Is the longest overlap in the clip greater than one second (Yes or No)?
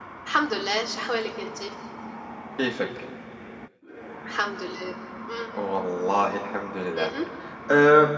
No